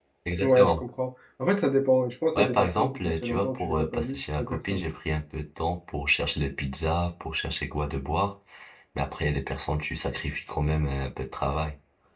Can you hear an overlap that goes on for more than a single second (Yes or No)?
Yes